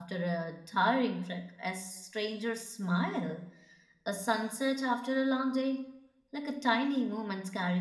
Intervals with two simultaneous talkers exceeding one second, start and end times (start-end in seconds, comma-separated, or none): none